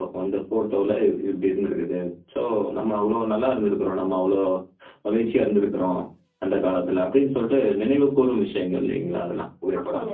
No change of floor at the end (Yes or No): No